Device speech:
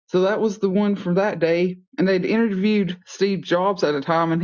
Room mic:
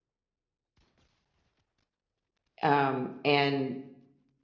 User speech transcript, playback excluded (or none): um, and